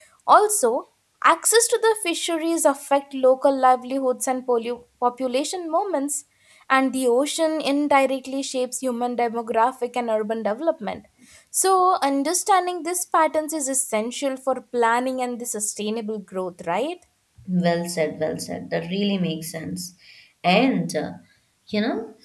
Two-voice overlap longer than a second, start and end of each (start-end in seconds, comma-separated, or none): none